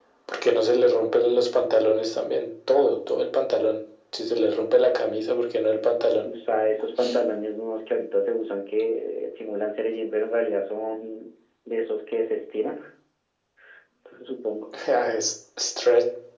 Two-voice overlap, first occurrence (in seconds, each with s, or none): none